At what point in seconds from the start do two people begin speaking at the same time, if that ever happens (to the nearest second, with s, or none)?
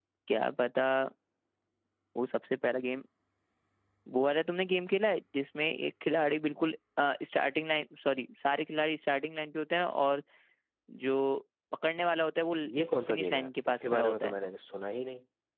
13 s